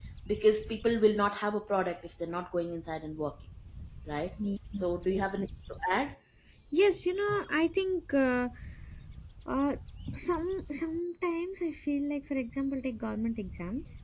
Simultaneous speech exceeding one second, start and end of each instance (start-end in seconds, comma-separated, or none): none